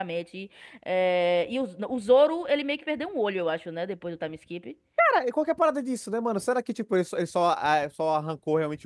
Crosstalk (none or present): none